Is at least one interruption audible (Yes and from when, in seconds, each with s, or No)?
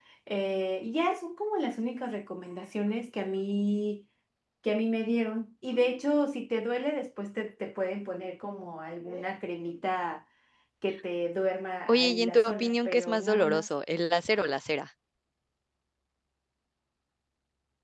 Yes, from 11.9 s